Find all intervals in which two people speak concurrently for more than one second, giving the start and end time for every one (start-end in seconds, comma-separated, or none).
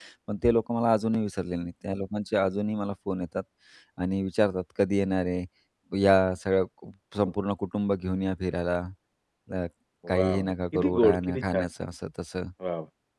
10.1-11.7